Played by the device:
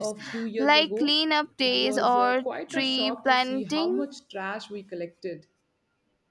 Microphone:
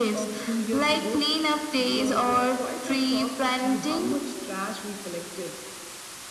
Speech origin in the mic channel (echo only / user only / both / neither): echo only